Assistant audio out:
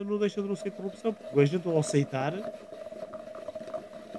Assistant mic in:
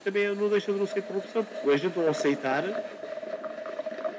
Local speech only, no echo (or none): none